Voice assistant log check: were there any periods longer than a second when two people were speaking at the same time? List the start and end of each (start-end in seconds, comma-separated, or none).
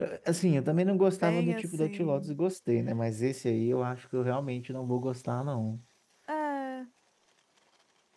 1.1-2.4